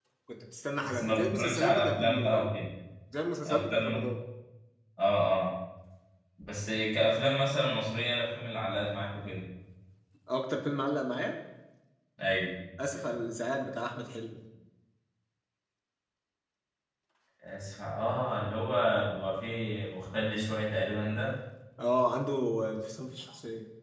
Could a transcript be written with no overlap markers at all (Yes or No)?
No